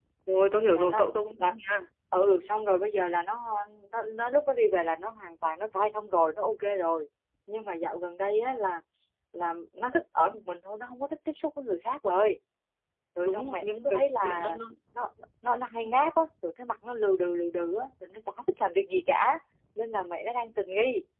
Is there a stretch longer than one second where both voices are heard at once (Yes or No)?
Yes